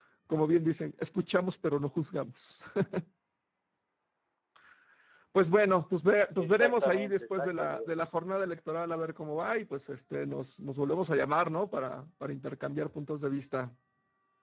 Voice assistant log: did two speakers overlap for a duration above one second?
Yes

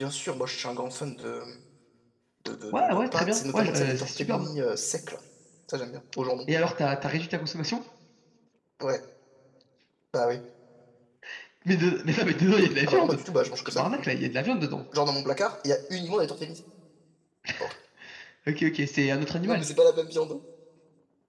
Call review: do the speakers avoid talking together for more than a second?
No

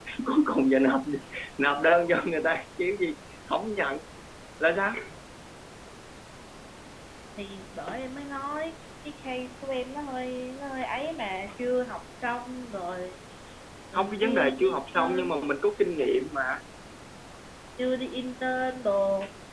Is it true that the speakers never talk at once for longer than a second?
No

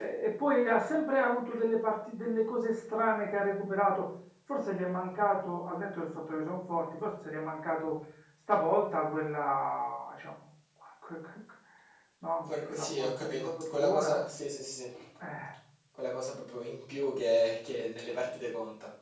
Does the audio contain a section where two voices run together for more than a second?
Yes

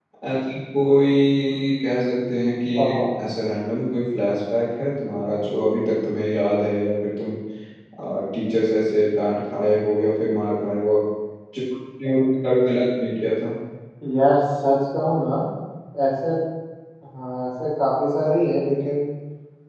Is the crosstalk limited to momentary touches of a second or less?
Yes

